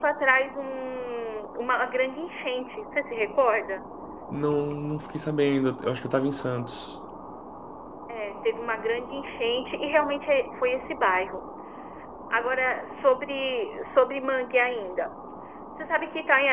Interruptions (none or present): none